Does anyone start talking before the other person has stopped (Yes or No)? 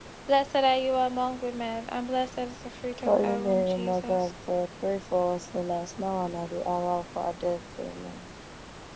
Yes